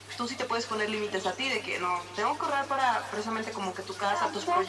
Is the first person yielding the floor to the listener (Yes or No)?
Yes